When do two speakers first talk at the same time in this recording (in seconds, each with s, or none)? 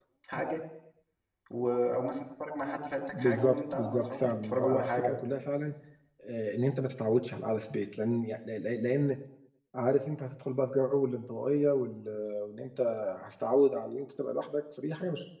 3.1 s